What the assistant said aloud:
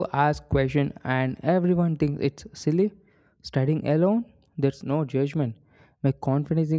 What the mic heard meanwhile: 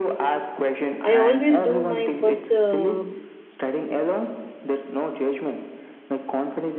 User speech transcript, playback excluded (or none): I always do my first uh,